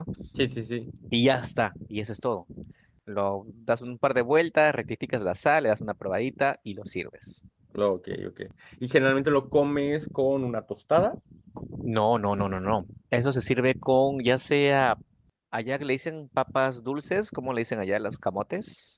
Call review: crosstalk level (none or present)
none